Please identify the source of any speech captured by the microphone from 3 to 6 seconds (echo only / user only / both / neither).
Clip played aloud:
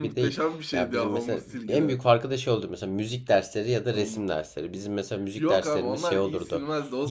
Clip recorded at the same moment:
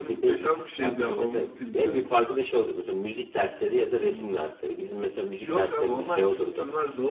echo only